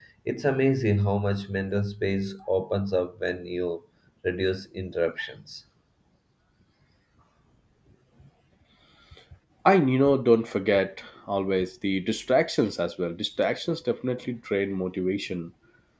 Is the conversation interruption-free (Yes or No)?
Yes